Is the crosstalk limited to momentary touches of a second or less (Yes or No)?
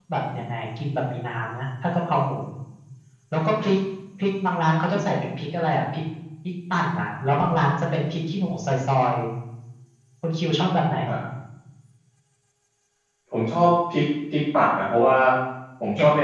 Yes